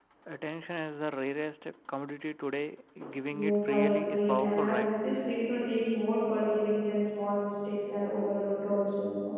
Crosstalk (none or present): present